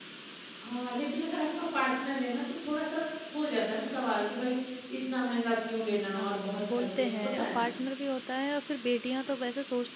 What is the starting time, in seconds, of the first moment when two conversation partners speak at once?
6.0 s

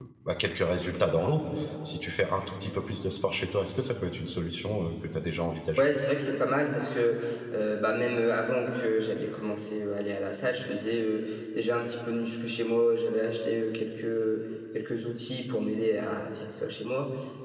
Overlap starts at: none

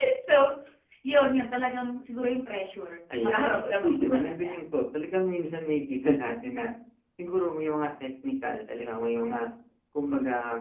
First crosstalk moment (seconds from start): 3.1 s

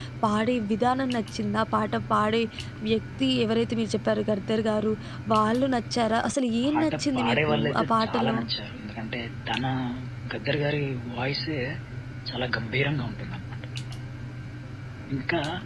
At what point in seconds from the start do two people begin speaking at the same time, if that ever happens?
6.6 s

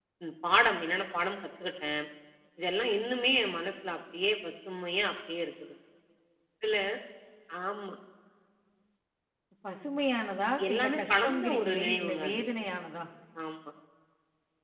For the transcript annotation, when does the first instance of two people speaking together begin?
10.6 s

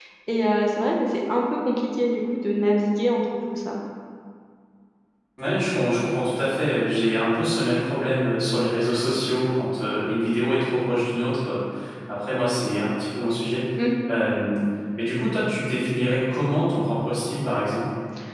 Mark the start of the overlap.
none

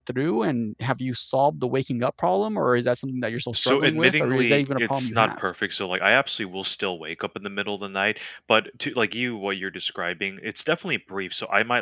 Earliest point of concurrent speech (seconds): 3.5 s

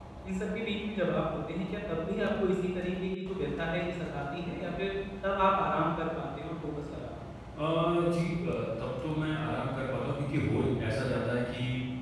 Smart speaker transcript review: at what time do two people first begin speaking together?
none

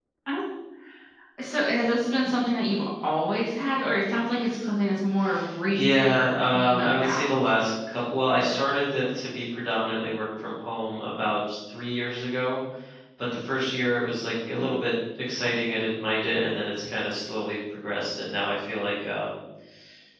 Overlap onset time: 5.7 s

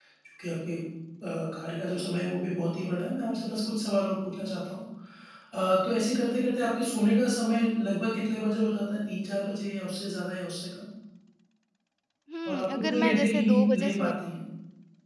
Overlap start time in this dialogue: 12.4 s

